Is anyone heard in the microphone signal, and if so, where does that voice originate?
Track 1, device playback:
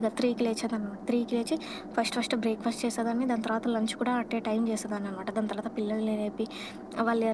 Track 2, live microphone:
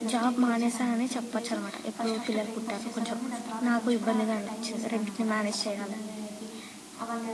both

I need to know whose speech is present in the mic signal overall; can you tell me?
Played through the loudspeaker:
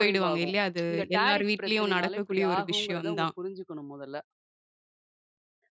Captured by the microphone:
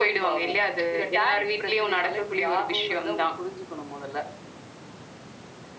echo only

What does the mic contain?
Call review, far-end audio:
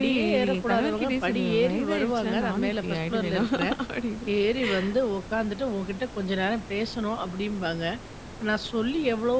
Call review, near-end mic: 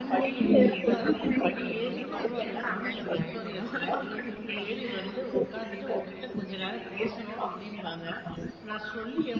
both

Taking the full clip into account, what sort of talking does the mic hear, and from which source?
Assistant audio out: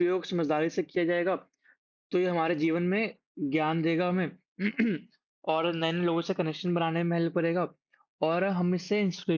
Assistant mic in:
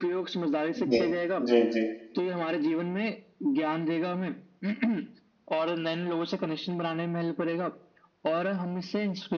both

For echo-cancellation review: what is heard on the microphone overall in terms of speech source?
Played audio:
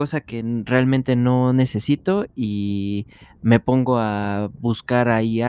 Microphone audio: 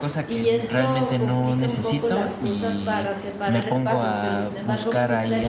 both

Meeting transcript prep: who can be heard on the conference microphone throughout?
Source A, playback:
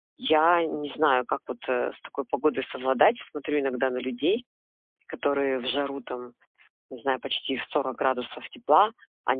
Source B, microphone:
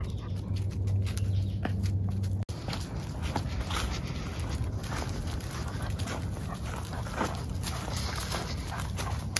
neither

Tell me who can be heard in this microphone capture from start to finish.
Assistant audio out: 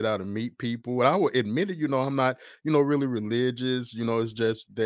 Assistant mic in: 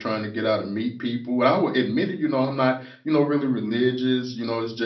echo only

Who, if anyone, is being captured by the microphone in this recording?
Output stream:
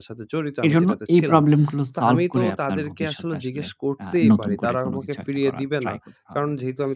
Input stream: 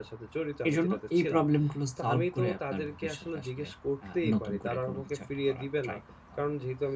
echo only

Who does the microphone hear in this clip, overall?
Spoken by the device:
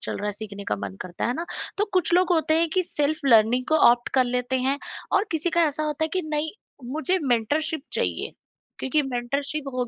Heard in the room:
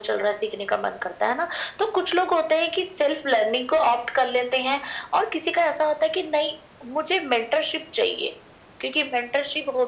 echo only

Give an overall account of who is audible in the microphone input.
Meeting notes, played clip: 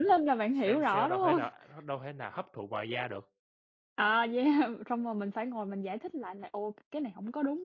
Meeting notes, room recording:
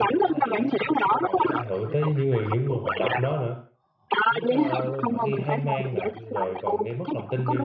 both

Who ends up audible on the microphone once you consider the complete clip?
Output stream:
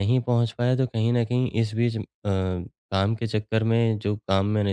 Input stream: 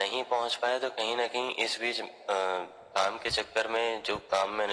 echo only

